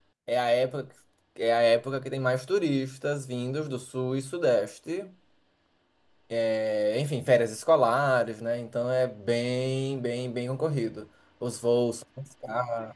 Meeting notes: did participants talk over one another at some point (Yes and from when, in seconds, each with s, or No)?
No